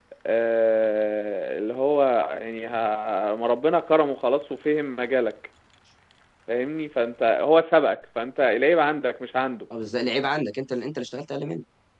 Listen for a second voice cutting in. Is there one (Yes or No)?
No